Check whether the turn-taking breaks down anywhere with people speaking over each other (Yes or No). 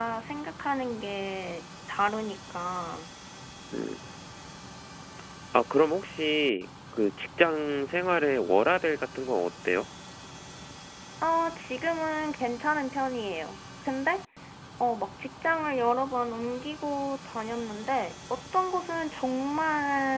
No